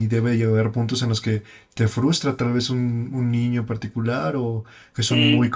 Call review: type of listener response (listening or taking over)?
taking over